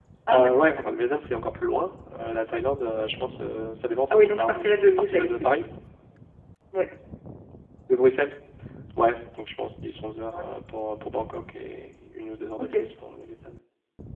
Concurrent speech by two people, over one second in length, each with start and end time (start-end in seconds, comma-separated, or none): 4.1-5.6